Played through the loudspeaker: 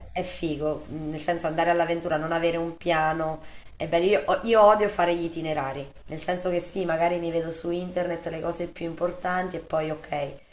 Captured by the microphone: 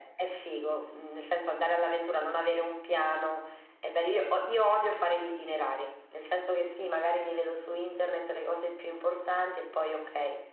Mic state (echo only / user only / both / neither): echo only